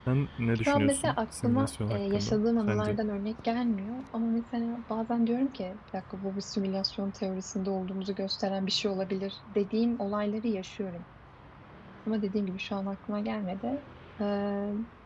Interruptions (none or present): present